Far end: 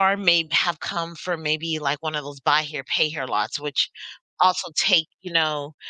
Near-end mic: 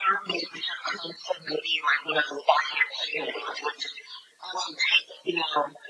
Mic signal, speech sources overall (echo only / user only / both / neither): echo only